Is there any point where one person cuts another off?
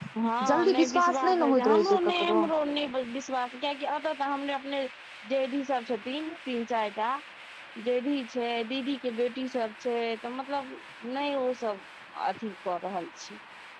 Yes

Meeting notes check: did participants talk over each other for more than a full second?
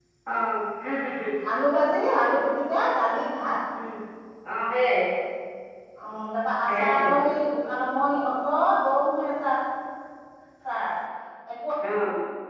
No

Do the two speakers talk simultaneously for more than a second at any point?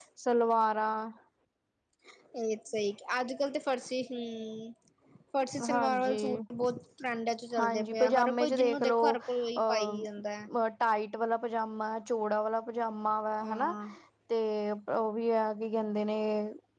Yes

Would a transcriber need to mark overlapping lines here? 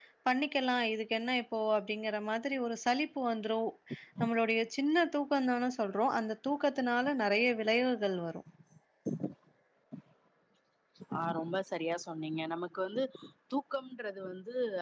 No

